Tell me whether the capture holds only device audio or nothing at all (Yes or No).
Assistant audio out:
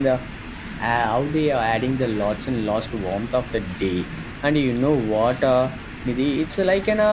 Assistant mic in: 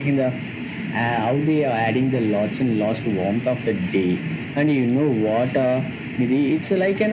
Yes